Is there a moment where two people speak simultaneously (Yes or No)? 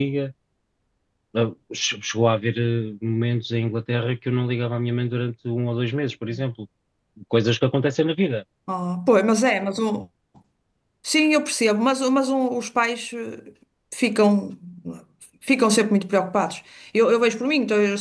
No